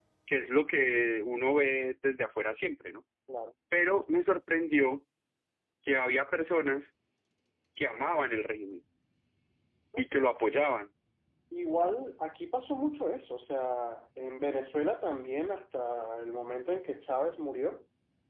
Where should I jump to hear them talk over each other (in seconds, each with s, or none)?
none